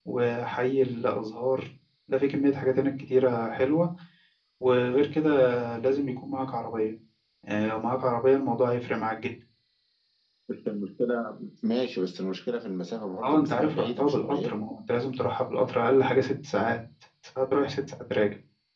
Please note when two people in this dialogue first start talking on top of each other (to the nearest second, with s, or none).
13 s